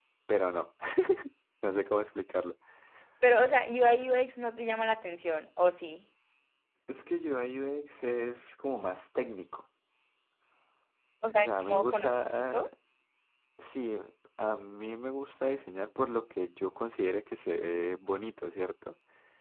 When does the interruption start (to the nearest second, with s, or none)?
11 s